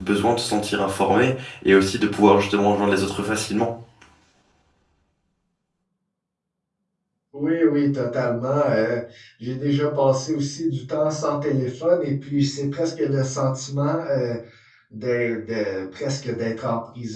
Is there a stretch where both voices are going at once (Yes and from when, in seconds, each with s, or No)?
No